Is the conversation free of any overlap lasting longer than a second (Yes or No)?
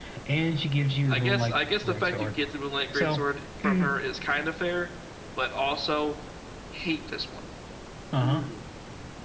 No